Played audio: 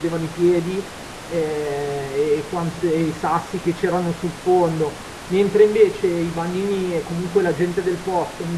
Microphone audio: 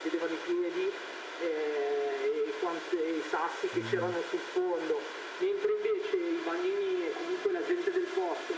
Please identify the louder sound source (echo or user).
echo